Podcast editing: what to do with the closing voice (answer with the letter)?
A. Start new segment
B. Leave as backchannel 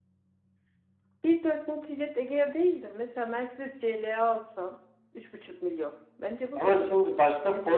A